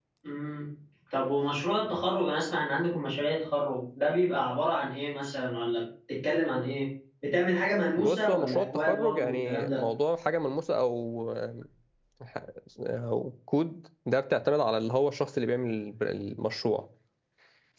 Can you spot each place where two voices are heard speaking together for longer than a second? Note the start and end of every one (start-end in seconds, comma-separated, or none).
8.0-9.8